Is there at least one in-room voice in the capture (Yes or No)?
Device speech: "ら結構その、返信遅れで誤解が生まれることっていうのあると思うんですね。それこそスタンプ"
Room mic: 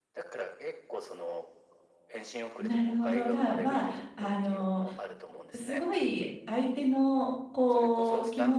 Yes